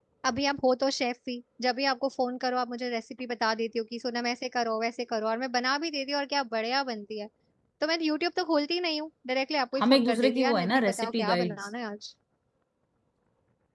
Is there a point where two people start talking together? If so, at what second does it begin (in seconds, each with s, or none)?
9.8 s